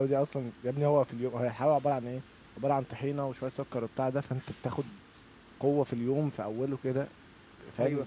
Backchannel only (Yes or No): No